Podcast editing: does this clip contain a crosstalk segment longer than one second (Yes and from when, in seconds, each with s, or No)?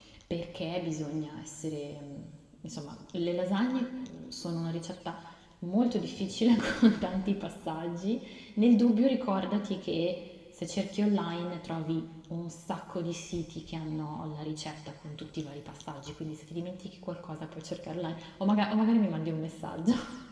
No